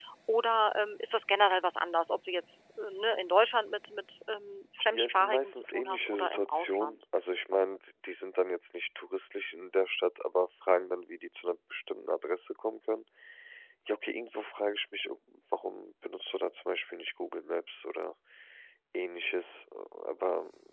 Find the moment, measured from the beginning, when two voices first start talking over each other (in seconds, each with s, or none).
4.9 s